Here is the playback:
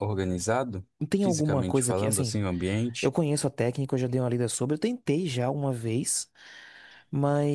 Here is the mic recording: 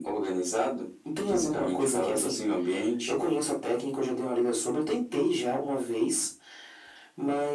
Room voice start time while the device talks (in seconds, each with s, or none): none